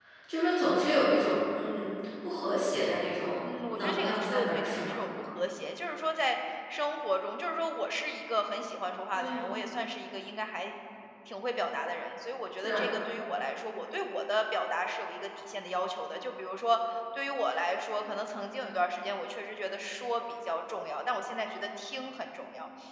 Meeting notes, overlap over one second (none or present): present